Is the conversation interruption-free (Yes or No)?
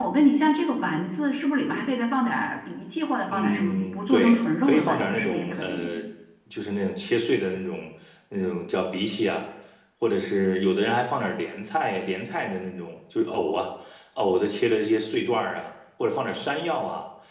No